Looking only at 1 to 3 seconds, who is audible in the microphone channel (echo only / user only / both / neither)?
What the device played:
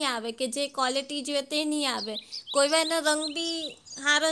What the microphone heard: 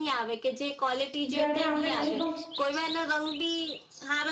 both